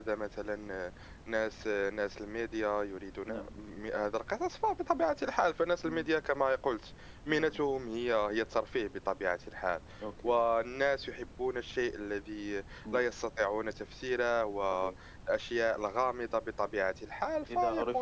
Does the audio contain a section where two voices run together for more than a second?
No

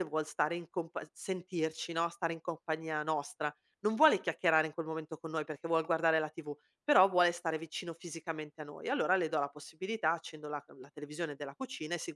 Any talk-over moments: No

